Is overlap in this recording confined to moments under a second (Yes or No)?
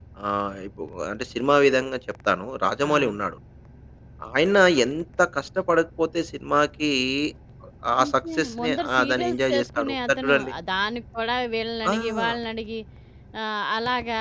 No